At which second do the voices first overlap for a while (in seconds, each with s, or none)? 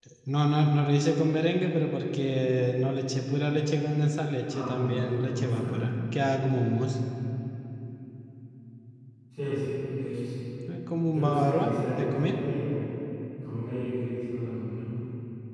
4.5 s